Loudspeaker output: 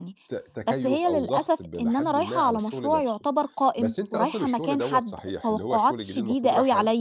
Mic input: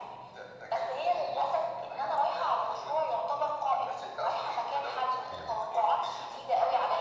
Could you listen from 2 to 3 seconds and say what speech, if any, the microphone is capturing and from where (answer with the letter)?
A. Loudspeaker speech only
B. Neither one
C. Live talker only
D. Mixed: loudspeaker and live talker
A